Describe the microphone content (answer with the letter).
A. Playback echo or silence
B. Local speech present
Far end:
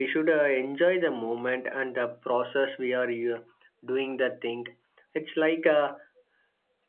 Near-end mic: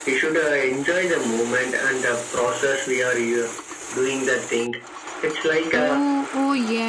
B